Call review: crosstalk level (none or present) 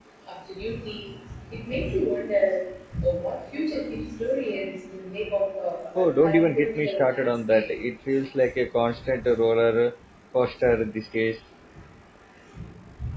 present